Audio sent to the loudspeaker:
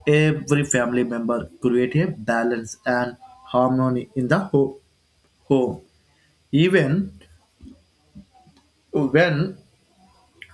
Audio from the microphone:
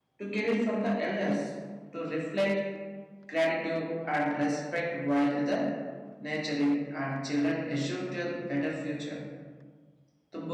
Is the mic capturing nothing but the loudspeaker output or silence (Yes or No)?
No